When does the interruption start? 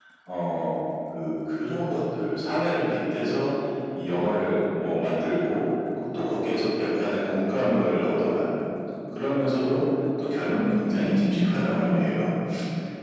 10.4 s

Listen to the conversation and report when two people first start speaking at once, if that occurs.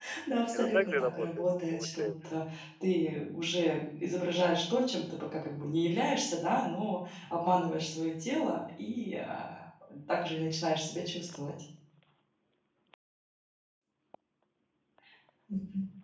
0.5 s

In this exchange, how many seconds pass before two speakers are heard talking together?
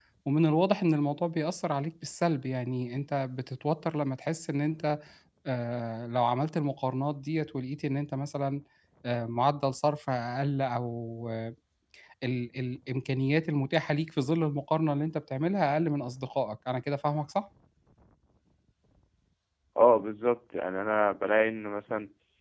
none

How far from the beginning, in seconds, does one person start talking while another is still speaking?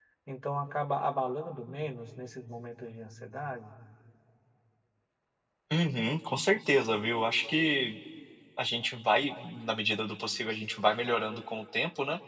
none

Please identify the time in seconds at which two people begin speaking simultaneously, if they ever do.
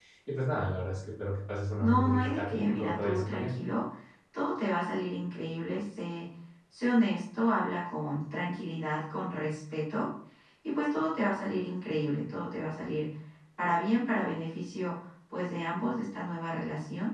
1.8 s

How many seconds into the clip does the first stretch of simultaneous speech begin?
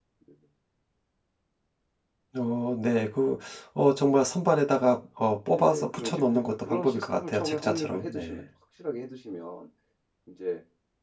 5.5 s

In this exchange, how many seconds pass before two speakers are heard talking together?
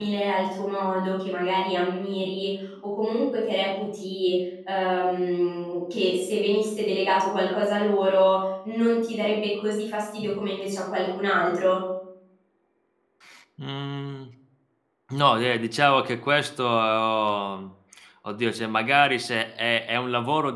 none

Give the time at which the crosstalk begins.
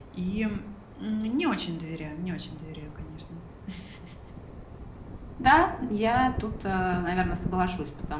none

